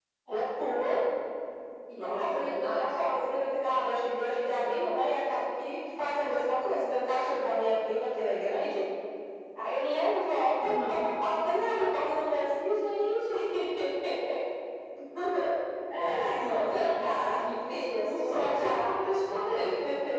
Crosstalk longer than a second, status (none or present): present